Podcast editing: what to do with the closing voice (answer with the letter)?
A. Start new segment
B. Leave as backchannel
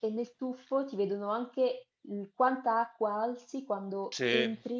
B